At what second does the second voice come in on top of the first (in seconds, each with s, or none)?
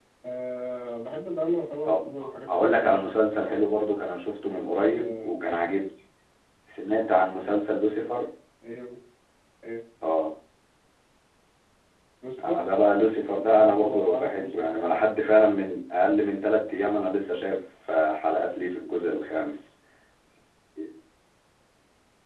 1.9 s